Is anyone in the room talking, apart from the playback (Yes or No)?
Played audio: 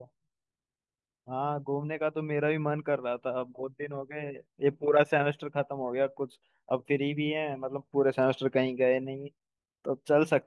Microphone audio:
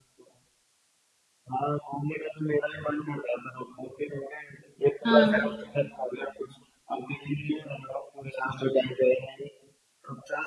Yes